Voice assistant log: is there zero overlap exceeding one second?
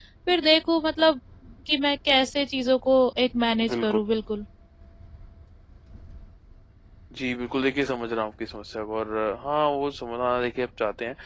Yes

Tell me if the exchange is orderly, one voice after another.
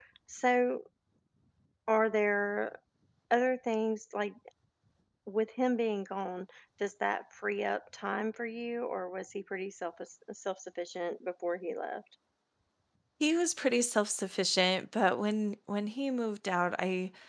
Yes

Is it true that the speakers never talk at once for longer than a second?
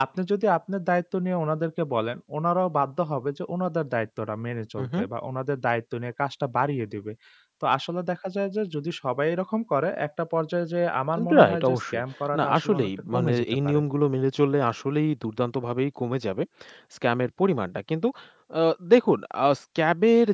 No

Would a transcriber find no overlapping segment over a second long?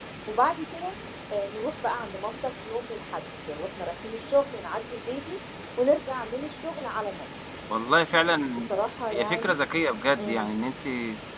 Yes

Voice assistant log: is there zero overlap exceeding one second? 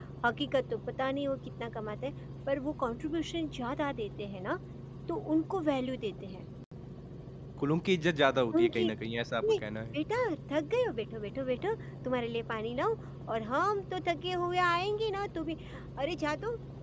Yes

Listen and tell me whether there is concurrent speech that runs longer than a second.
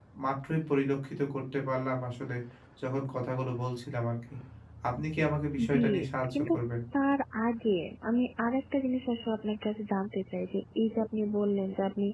No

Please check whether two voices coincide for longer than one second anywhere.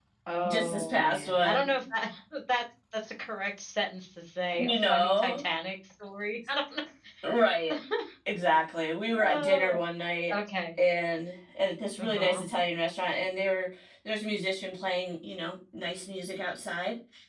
Yes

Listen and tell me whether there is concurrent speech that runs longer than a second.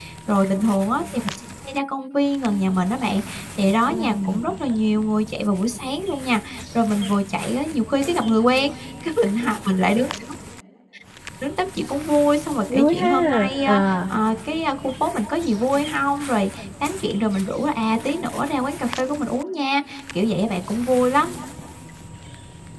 Yes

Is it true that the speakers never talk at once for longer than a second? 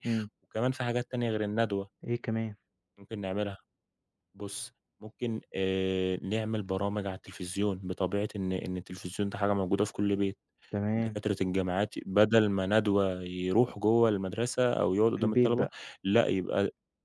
Yes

